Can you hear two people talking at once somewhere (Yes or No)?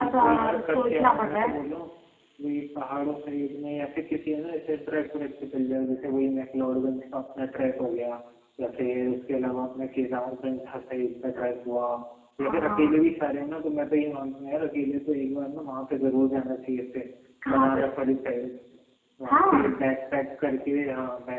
Yes